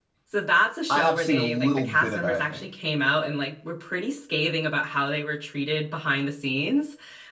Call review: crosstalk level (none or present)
present